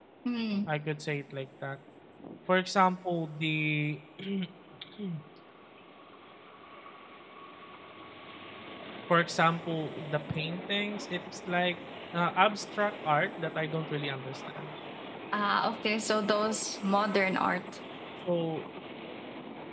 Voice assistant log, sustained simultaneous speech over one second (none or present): none